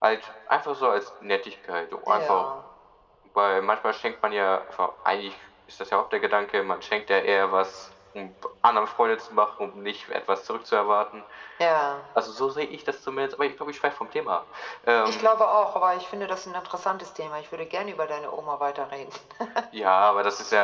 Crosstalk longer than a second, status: none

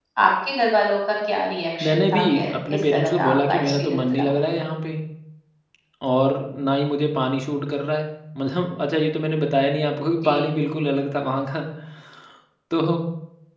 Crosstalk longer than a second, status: present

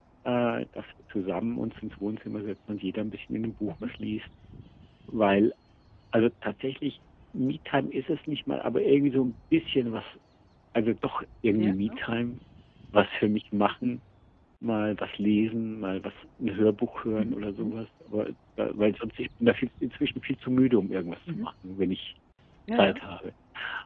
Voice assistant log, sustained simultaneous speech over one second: none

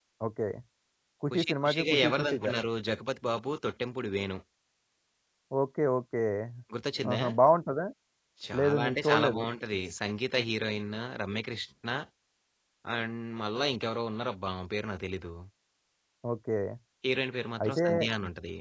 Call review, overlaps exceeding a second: present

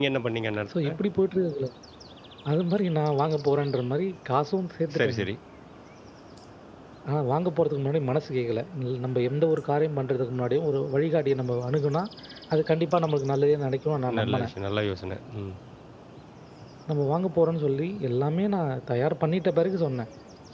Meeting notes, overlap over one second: none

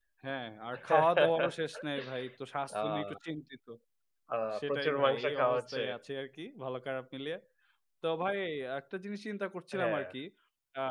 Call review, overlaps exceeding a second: present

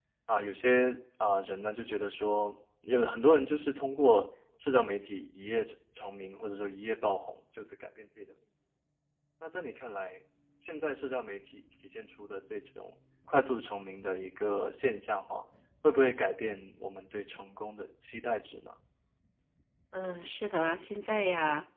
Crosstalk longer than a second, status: none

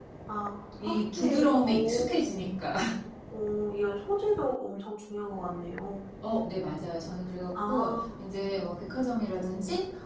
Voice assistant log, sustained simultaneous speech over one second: present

